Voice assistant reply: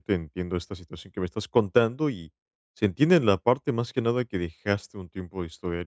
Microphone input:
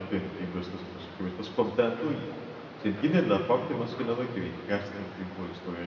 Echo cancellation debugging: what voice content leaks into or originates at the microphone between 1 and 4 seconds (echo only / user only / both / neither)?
echo only